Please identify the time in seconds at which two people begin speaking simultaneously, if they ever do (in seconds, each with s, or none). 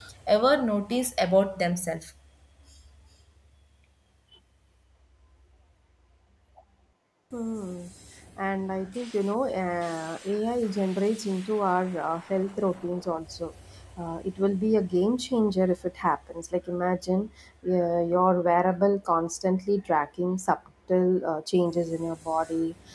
none